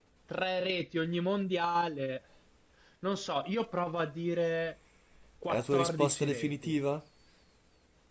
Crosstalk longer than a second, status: present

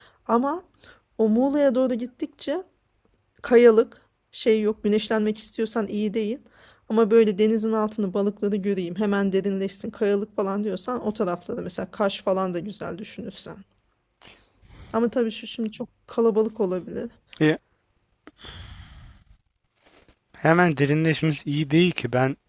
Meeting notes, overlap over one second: none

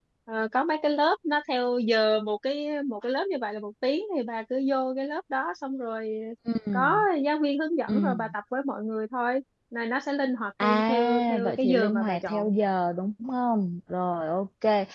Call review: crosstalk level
present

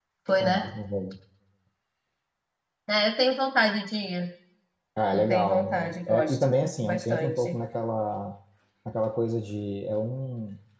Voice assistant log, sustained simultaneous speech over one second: present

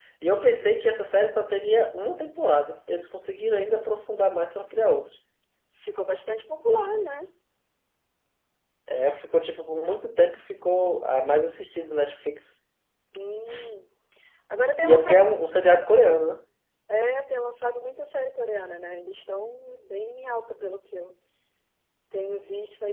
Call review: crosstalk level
present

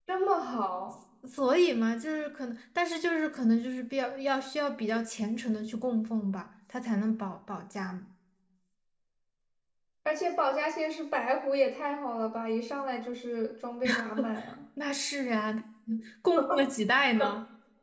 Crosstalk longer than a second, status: none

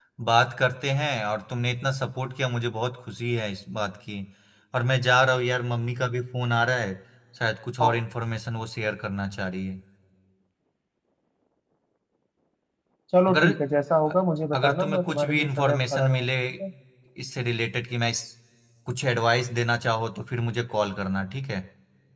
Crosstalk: present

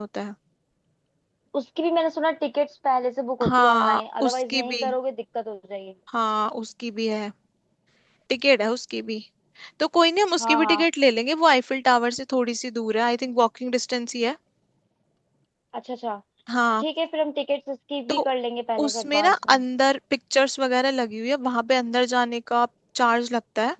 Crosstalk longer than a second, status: present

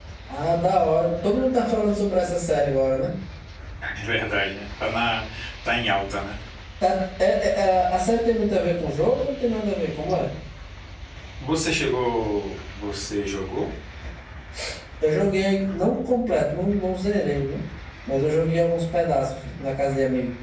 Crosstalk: none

